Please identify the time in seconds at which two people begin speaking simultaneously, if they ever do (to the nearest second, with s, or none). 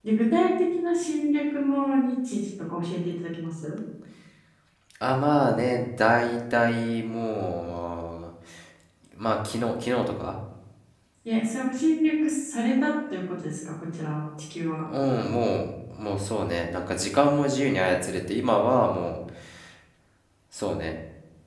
none